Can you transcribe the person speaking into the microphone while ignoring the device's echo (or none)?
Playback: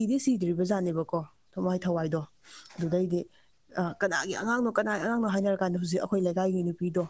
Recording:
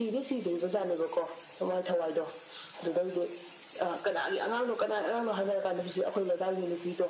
none